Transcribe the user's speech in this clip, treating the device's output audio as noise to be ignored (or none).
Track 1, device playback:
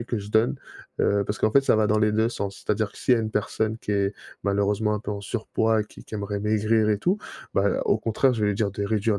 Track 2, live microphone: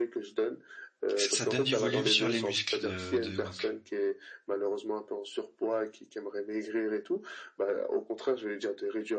Ça, ça donne du volume sur les muscles de de donc.